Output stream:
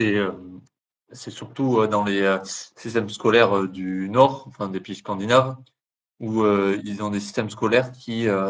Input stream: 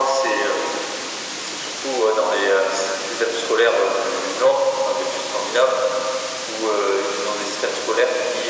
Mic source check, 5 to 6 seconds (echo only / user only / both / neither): echo only